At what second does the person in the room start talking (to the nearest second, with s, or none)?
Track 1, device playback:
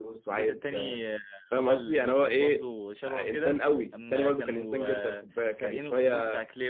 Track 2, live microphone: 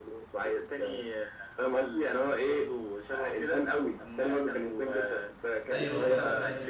6 s